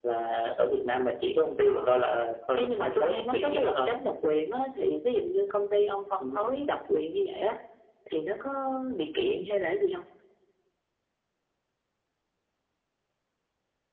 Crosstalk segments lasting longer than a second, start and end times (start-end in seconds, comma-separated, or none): 2.6-3.9